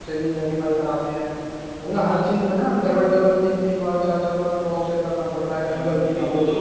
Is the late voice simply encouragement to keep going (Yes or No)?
No